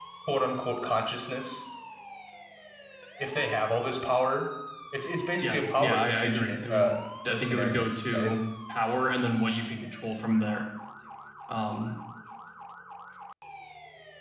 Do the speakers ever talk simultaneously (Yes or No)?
Yes